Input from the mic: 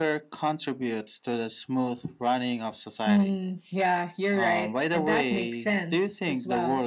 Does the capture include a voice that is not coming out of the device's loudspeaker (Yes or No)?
No